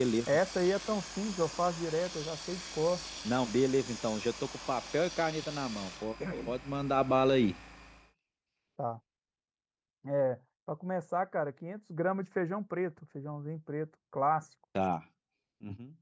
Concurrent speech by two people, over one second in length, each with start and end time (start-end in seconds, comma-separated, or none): none